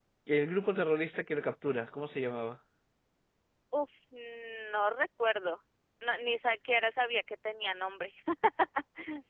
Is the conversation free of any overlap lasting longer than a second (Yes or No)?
Yes